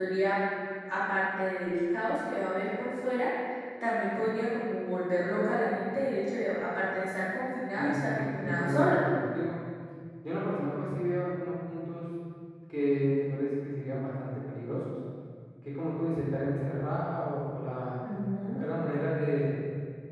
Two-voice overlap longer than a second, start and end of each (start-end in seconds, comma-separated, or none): 7.8-9.0